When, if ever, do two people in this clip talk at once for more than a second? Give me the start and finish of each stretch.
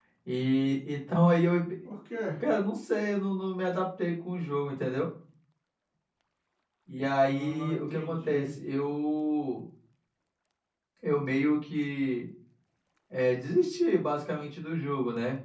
7.3-8.5

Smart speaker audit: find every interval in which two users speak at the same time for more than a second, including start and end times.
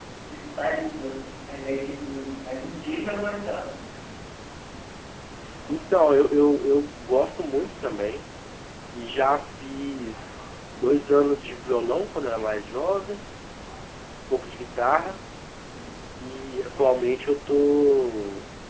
none

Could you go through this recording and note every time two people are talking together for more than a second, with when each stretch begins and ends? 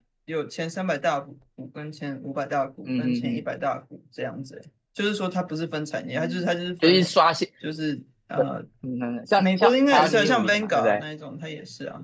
9.4-11.0

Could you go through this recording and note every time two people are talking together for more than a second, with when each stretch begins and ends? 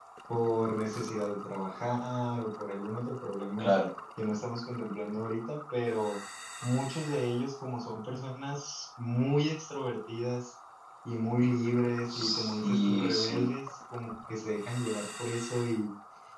12.1-13.4

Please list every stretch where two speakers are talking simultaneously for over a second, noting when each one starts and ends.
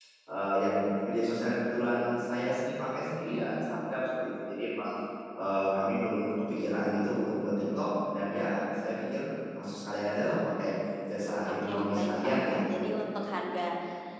11.5-12.9

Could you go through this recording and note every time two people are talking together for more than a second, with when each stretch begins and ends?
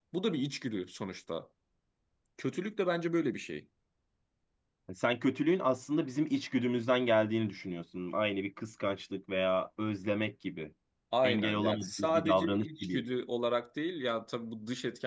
11.2-13.0

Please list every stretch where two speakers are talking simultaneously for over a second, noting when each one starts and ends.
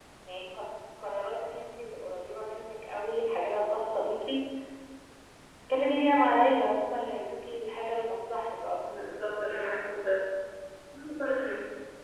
none

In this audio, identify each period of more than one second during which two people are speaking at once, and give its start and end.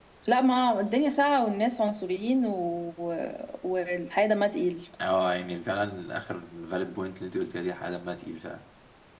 none

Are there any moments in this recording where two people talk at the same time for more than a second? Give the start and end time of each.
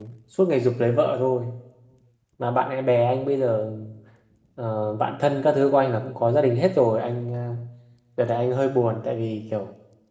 none

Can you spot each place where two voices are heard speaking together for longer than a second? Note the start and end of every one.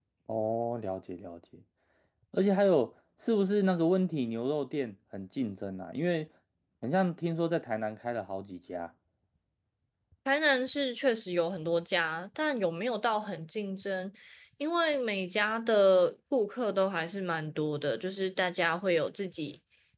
none

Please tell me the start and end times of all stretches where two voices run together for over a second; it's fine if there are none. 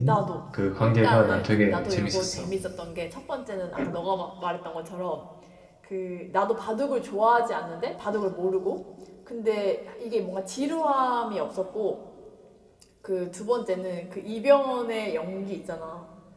0.8-2.5

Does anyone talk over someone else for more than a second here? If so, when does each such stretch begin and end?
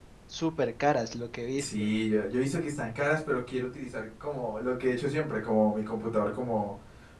none

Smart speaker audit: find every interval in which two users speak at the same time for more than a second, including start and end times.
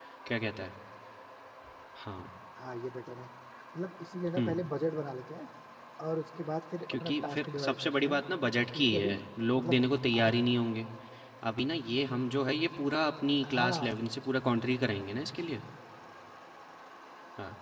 6.9-8.2

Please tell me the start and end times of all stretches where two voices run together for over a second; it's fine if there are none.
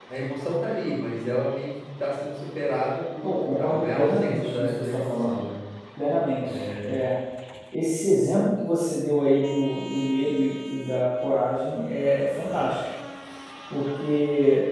3.2-5.5

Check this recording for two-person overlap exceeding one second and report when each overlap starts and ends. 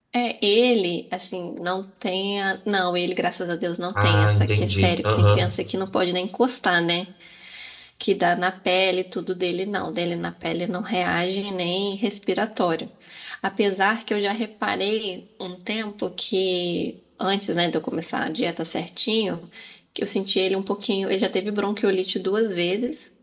4.0-5.5

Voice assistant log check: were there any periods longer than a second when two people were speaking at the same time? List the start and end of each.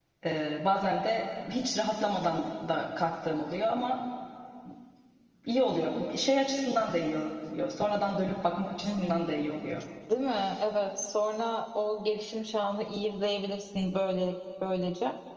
none

